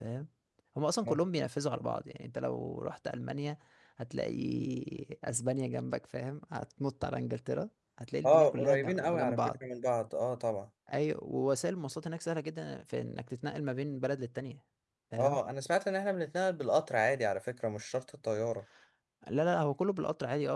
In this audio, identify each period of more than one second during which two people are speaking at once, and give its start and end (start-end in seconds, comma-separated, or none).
8.2-9.5